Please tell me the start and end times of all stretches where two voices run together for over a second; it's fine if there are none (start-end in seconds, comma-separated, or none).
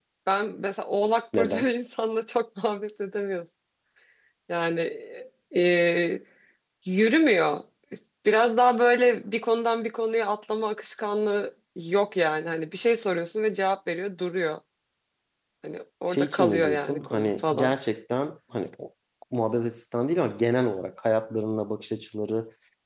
16.1-17.7